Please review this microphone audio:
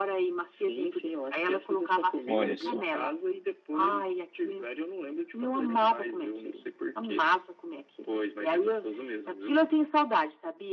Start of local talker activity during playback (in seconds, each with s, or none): 2.3 s